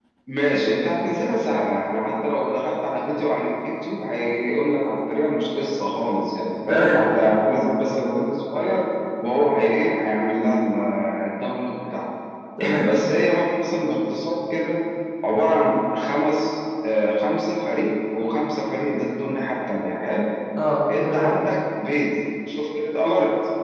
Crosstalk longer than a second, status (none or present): none